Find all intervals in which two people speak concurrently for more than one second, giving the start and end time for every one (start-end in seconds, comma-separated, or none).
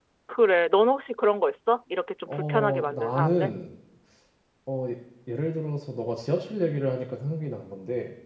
2.3-3.5